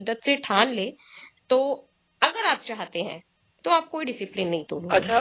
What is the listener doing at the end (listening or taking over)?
taking over